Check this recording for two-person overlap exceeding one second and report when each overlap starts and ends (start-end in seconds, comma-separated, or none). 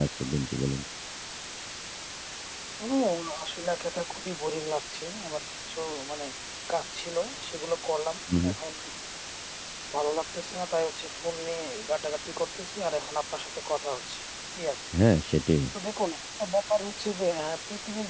none